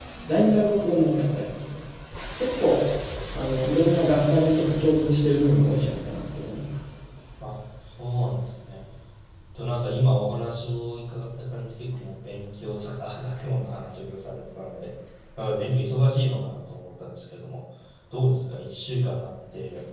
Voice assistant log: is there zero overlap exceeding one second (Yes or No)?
Yes